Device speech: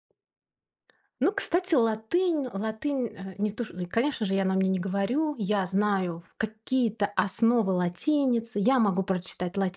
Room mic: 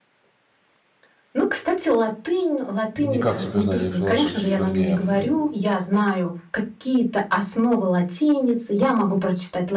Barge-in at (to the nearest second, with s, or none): 3 s